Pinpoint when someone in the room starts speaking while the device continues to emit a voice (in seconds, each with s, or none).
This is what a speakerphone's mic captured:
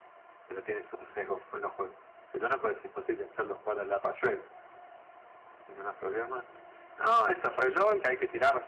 none